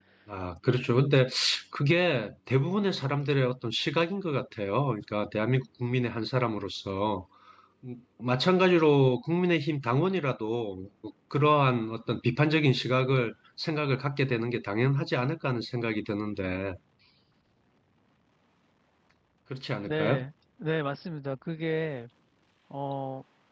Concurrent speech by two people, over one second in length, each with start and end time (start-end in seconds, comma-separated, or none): none